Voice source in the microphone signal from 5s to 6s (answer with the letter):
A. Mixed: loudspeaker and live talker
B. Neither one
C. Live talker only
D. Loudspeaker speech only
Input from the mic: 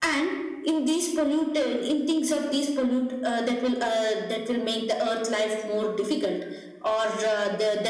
D